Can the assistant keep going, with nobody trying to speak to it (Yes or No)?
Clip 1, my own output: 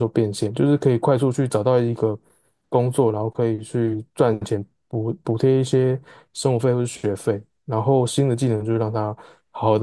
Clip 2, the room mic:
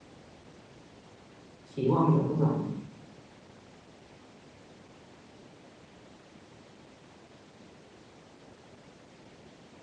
No